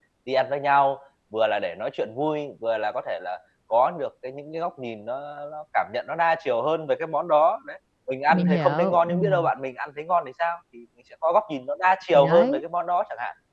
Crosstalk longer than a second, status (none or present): present